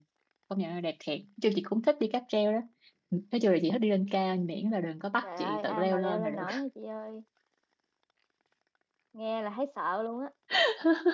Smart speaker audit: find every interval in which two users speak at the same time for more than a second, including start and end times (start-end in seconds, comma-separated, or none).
5.2-6.4